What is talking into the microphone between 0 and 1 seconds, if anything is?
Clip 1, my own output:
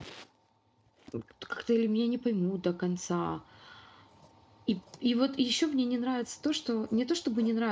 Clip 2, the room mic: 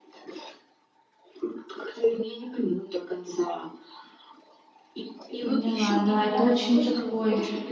neither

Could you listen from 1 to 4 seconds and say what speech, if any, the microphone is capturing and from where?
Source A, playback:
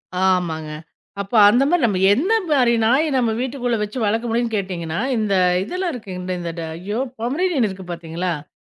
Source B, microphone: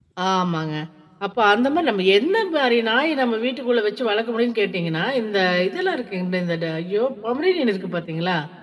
echo only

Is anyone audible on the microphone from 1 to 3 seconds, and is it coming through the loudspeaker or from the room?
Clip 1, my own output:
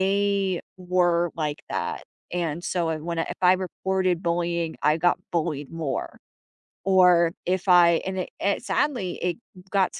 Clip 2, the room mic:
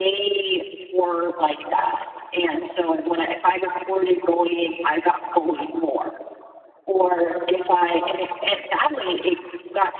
echo only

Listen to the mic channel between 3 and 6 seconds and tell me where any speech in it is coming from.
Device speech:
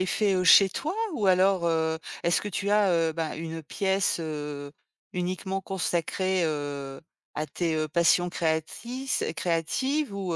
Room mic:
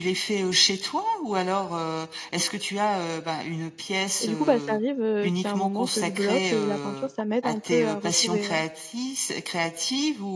both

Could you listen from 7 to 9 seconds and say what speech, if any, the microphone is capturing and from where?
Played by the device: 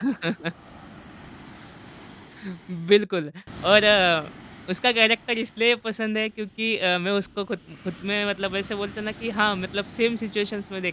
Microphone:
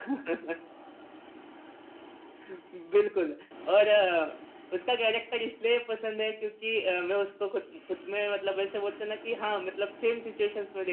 echo only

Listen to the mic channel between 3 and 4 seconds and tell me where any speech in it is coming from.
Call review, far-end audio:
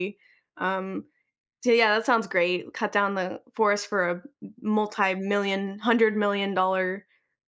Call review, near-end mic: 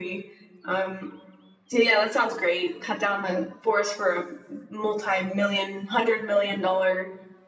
echo only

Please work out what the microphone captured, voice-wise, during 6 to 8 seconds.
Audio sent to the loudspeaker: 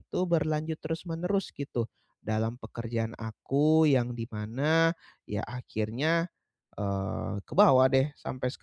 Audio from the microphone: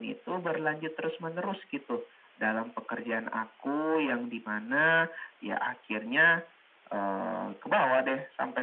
echo only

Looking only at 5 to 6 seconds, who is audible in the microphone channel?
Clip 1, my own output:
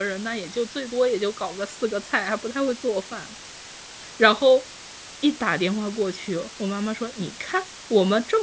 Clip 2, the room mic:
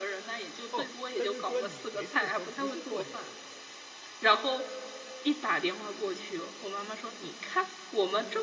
echo only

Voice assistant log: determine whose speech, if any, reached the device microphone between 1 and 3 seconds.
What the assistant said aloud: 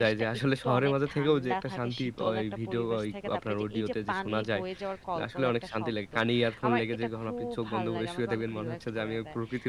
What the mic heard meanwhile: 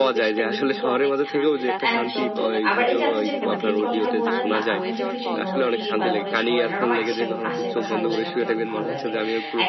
both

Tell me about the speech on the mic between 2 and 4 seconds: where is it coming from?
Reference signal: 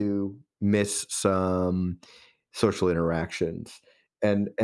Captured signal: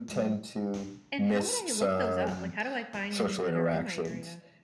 both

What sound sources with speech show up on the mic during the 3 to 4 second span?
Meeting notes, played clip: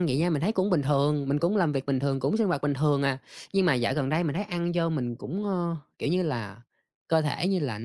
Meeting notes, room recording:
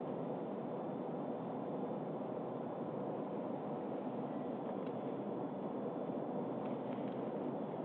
neither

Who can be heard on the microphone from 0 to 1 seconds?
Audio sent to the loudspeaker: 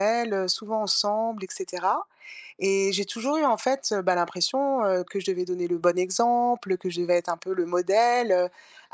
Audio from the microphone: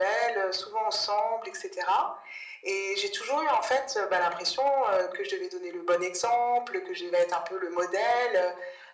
echo only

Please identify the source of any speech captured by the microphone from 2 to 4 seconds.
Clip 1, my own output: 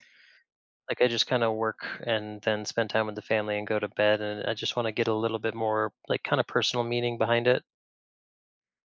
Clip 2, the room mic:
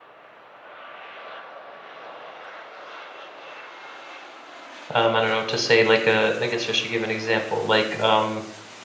neither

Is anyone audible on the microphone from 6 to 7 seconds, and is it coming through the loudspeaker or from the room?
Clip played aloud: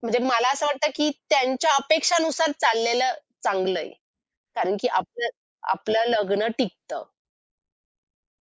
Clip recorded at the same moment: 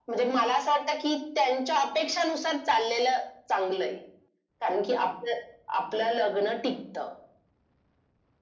echo only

